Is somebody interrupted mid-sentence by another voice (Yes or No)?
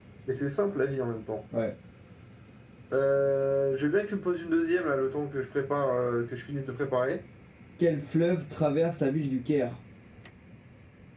No